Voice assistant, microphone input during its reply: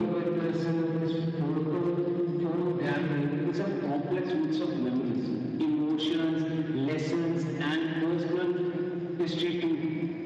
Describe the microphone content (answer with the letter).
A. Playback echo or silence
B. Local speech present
A